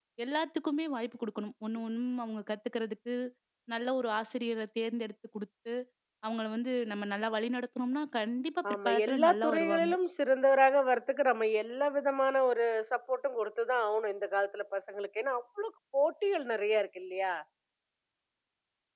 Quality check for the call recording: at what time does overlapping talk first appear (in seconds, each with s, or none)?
8.6 s